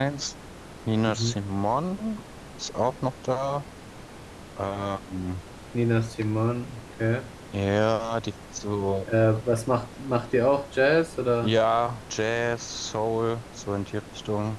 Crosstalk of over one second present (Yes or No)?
No